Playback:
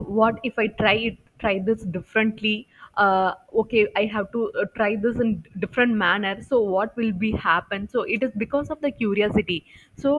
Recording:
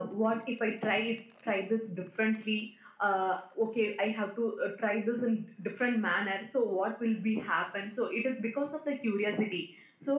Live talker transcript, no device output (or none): none